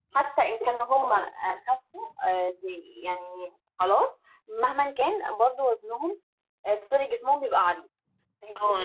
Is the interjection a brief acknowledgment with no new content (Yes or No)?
No